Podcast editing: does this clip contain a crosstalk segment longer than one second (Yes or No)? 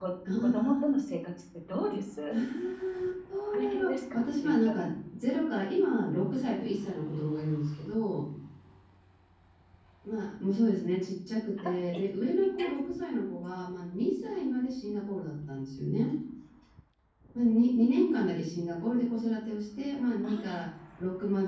Yes